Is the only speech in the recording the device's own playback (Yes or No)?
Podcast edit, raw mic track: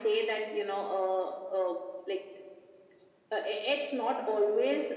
Yes